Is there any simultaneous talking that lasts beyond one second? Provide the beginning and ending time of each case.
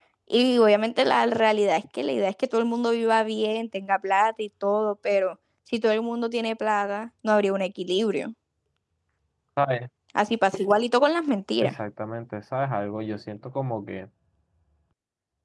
none

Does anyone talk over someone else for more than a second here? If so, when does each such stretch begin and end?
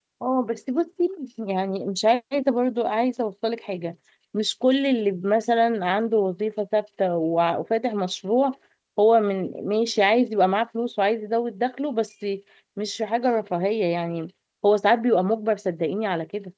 none

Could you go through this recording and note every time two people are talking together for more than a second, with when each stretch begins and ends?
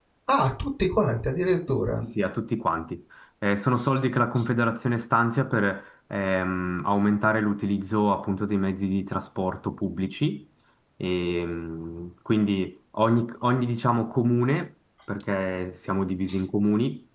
none

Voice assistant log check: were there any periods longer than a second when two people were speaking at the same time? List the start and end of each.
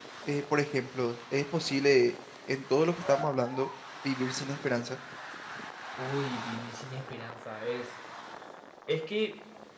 none

